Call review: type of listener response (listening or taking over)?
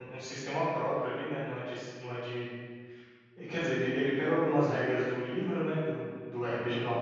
listening